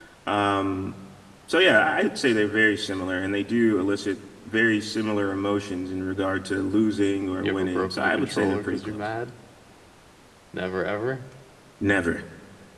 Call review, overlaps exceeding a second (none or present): present